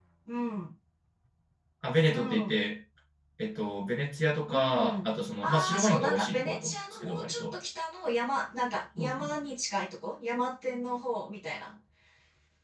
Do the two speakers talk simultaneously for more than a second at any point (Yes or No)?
Yes